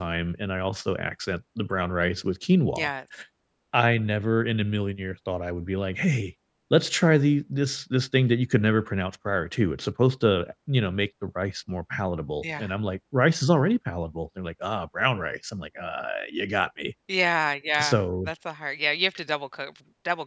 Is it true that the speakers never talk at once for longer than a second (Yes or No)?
Yes